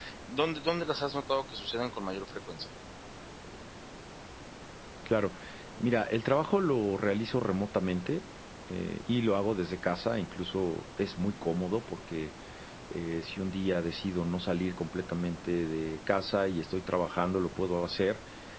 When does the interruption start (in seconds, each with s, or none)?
none